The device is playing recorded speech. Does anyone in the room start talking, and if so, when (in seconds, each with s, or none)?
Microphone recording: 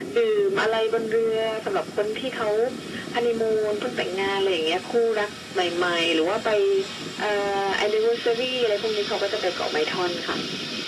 none